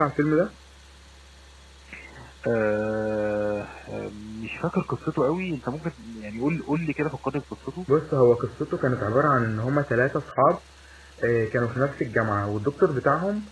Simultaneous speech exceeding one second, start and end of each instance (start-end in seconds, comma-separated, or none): none